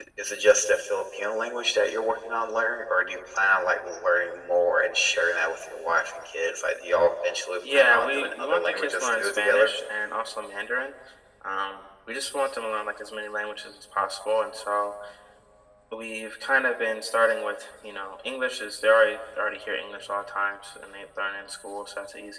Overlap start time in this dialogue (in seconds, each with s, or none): 7.6 s